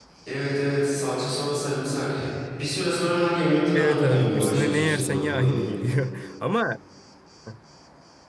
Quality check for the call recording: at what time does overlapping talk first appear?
3.7 s

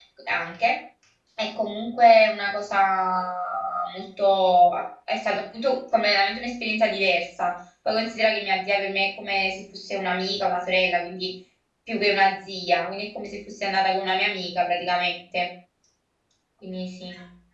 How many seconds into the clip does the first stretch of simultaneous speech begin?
none

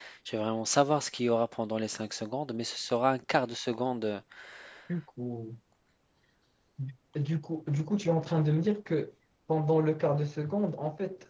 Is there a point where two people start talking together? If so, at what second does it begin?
none

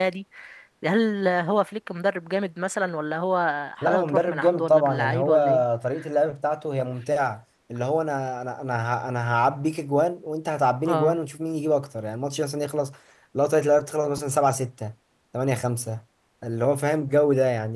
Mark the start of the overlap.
3.8 s

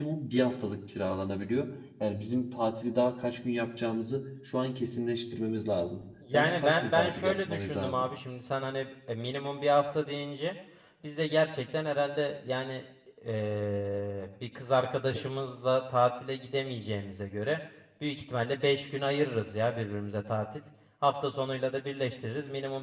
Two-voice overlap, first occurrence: 6.2 s

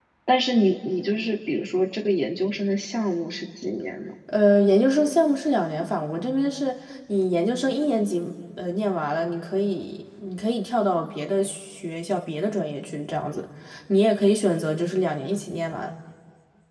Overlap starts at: none

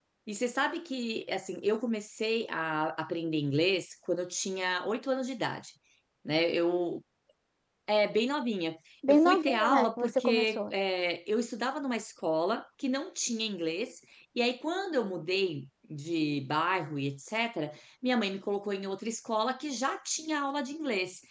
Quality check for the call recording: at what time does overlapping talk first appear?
9.0 s

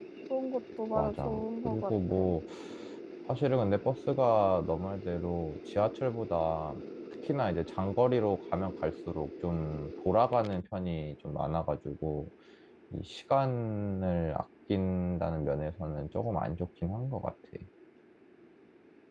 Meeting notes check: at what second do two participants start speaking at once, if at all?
1.0 s

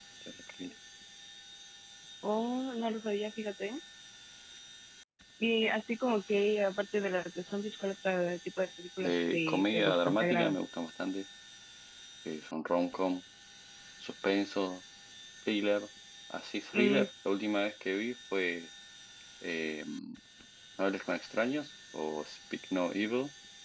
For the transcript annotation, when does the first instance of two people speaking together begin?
9.0 s

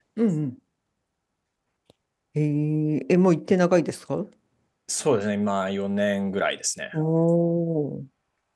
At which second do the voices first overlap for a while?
none

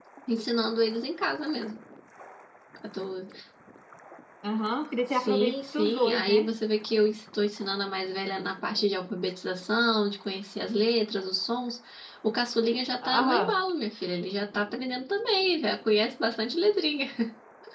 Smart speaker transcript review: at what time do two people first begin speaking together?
5.1 s

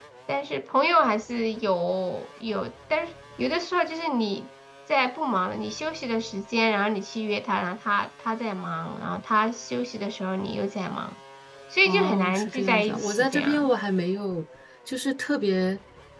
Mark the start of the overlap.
11.8 s

